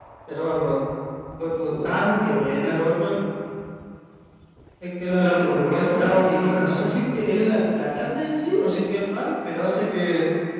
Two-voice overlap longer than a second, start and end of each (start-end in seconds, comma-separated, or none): 5.2-6.9